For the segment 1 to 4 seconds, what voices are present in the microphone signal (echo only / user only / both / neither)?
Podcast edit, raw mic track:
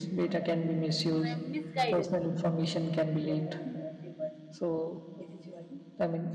both